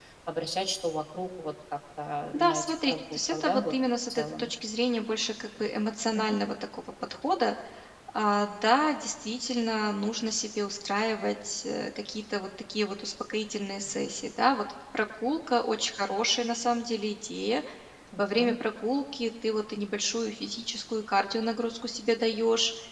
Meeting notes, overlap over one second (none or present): present